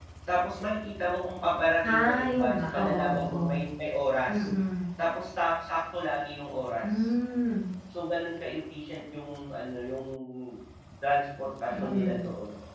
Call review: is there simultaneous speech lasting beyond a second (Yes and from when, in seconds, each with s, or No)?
Yes, from 1.8 s